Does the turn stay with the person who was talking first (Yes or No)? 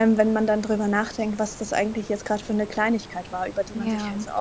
Yes